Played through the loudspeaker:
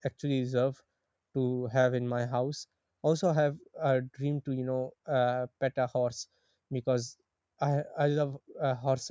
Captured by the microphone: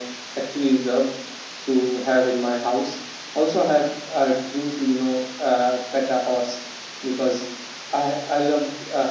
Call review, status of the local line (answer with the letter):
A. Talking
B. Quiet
B